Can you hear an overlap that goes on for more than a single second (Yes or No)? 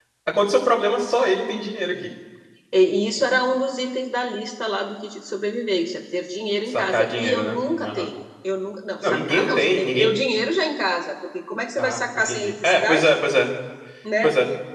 Yes